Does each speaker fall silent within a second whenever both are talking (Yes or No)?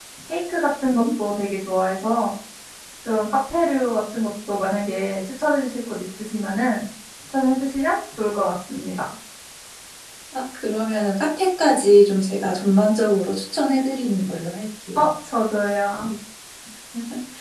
Yes